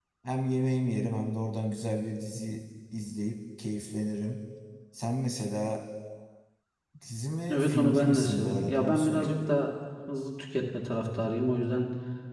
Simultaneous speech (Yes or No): Yes